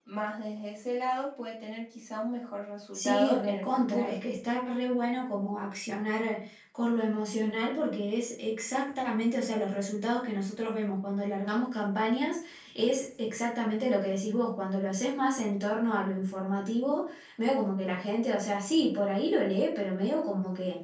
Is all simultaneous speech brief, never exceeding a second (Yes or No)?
No